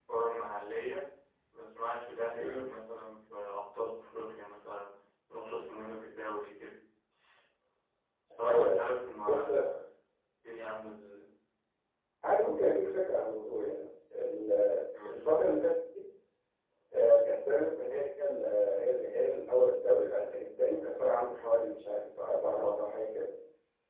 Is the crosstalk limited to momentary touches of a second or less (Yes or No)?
Yes